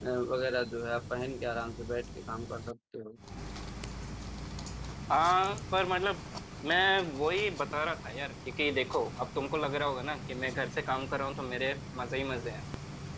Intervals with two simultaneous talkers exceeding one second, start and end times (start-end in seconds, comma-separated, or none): none